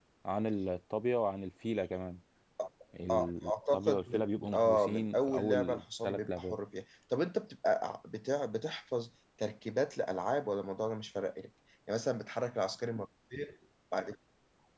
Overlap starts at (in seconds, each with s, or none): 3.1 s